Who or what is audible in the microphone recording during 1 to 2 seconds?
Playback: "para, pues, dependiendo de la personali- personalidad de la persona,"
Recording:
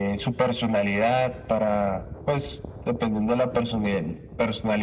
echo only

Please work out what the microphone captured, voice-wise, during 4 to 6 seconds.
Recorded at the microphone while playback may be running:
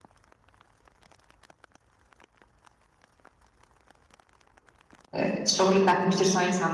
user only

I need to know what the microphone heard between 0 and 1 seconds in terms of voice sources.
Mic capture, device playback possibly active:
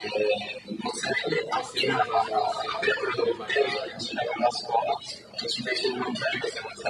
echo only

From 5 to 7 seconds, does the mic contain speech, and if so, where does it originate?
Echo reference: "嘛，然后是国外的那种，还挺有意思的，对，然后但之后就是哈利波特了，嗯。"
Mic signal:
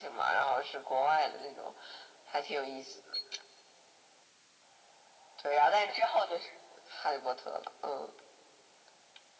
echo only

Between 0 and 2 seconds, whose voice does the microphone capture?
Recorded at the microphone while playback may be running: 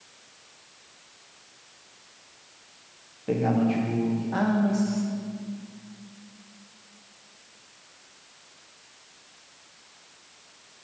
neither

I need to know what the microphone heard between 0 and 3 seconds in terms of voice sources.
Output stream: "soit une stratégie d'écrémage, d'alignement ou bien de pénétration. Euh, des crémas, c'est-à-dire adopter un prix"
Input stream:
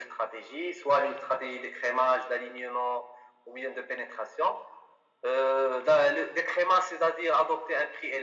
echo only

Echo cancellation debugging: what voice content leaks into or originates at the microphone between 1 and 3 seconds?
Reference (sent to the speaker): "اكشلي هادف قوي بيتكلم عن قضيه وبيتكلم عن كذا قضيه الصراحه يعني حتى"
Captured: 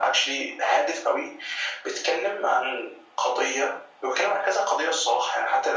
echo only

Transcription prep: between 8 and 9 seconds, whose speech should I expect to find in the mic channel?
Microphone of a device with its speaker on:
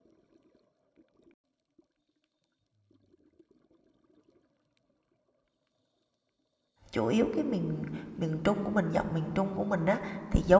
user only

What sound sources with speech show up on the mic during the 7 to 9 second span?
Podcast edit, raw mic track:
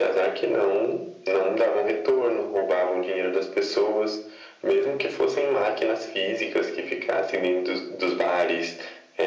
echo only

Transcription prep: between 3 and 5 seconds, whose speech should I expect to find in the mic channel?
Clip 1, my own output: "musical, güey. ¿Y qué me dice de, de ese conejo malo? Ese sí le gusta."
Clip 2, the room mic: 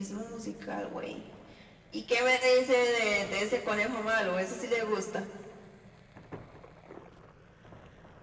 echo only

